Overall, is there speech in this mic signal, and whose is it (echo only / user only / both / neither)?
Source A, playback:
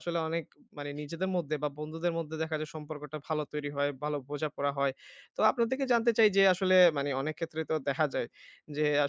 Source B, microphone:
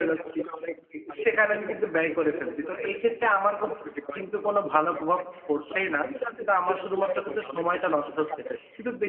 both